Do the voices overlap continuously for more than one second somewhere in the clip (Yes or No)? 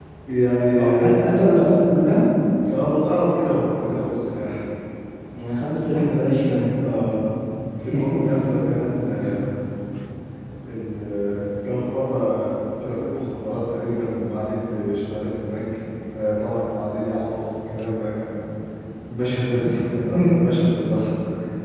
No